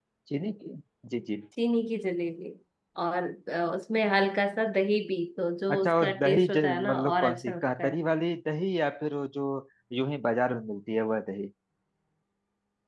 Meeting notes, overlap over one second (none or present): present